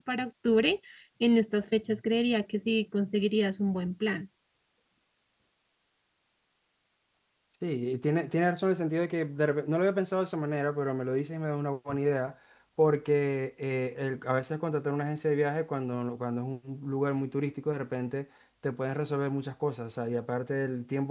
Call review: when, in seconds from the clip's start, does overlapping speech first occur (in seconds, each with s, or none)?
none